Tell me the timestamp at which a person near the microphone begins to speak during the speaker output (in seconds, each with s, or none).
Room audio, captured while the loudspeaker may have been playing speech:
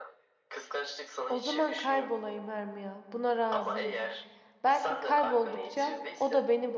1.3 s